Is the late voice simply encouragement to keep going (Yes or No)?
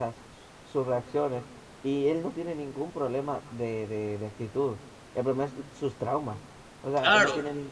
Yes